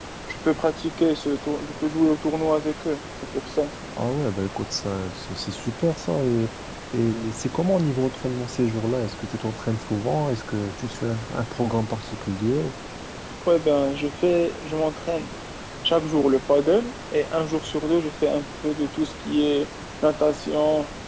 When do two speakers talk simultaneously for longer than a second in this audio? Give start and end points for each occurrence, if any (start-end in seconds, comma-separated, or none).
none